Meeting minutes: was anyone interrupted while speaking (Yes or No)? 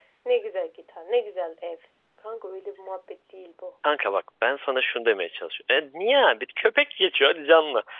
No